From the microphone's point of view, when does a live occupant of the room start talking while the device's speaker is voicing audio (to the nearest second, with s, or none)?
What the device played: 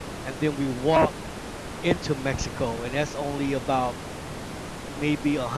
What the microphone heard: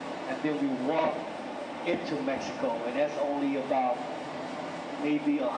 none